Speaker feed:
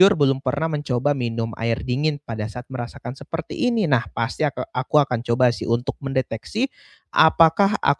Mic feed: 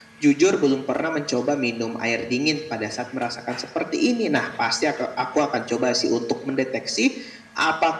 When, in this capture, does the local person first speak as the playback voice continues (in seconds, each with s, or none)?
none